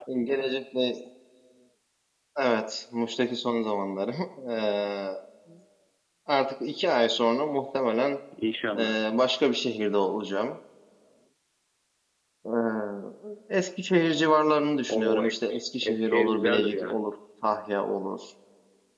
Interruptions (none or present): present